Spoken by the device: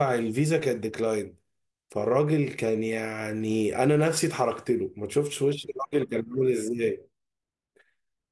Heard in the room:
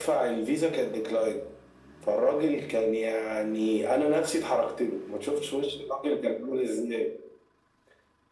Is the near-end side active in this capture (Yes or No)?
No